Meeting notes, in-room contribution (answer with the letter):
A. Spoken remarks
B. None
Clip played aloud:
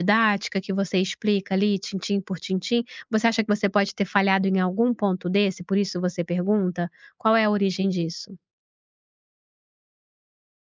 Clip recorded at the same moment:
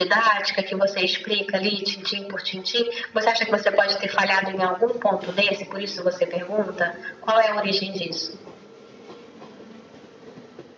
B